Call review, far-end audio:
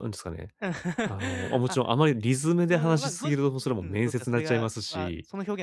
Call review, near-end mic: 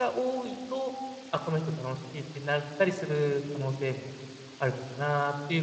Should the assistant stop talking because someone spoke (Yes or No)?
Yes